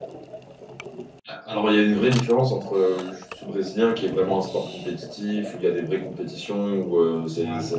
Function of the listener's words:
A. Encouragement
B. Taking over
A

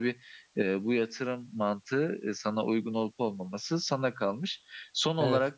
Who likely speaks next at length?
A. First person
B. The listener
A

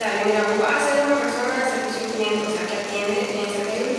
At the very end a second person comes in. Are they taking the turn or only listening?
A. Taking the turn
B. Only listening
B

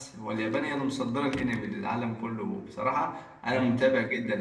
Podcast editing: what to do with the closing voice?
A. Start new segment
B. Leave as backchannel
B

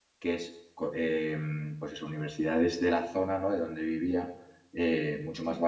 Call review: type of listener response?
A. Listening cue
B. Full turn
A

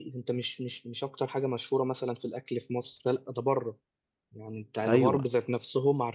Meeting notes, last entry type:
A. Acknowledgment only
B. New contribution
A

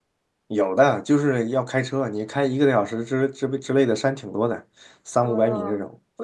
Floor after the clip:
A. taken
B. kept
A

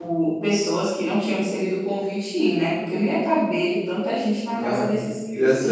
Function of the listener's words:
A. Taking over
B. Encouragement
A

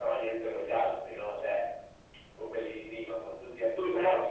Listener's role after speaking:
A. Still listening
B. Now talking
B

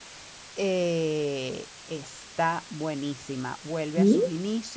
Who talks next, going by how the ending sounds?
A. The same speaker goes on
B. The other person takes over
A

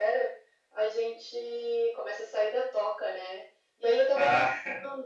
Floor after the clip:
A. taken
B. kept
B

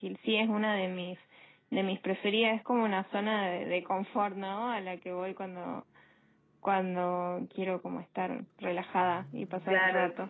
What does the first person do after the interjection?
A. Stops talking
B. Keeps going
A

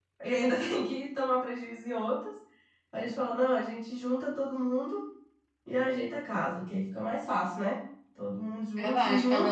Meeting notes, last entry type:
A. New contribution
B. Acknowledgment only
A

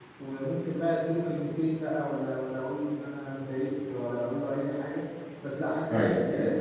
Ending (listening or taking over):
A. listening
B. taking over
A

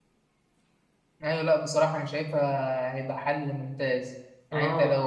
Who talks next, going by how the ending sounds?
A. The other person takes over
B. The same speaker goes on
B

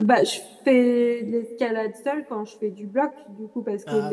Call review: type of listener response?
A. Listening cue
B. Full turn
A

